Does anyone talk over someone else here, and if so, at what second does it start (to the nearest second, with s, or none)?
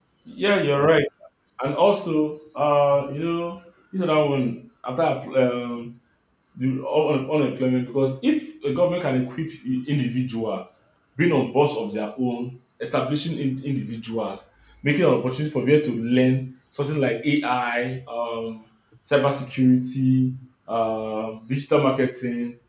none